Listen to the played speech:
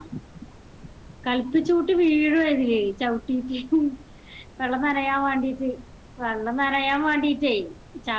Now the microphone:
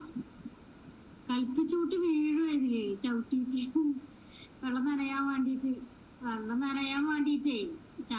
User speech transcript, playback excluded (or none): none